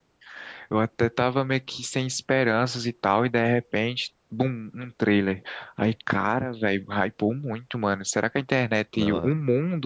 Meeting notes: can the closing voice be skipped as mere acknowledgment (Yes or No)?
Yes